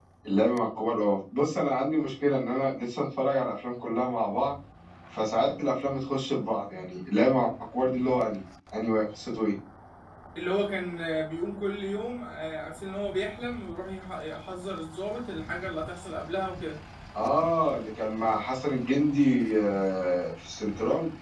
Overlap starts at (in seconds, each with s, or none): none